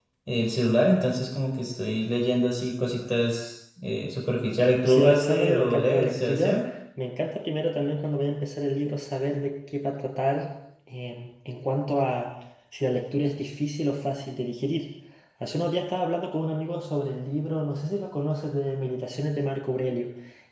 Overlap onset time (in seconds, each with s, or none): 4.8 s